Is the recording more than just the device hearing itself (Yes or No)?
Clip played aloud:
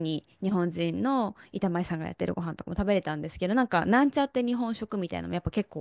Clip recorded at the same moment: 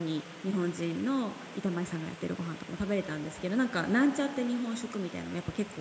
No